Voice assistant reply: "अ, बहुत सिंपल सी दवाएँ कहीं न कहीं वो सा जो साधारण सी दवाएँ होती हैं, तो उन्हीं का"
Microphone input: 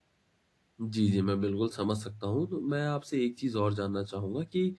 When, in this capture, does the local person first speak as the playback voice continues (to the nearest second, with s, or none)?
1 s